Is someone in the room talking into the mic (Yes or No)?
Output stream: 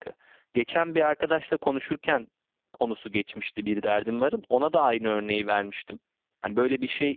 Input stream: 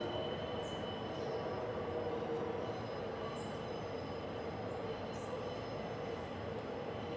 No